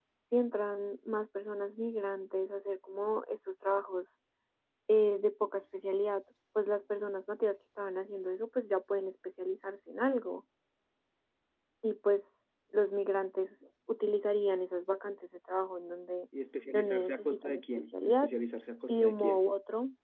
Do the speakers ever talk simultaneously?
Yes, from 16.7 s

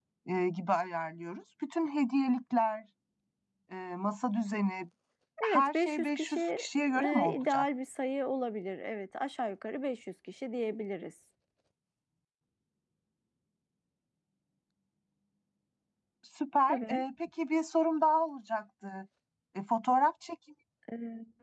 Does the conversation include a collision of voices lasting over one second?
Yes, from 5.4 s

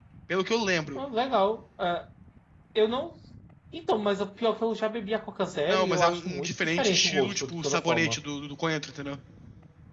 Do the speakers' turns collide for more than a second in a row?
Yes, from 5.7 s

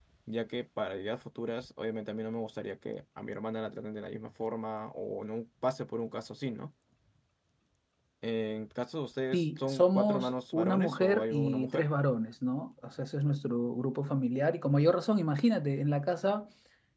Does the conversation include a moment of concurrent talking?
Yes, from 9.3 s

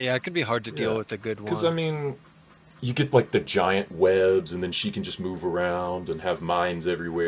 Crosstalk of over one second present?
No

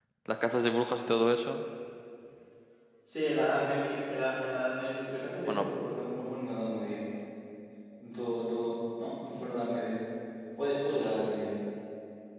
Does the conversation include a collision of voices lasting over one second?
No

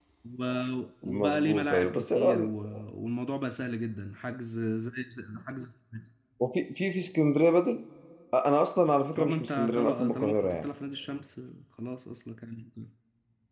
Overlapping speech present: Yes, from 1.1 s

